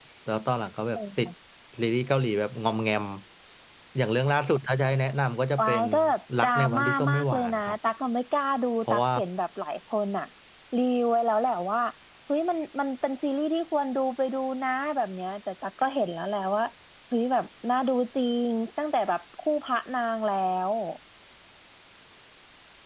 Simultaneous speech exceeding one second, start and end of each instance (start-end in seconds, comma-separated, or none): 6.4-7.7